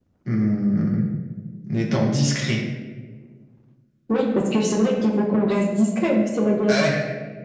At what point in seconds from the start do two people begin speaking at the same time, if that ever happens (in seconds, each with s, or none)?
none